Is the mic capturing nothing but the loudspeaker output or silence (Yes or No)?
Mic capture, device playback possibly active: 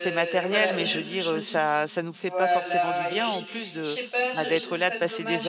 No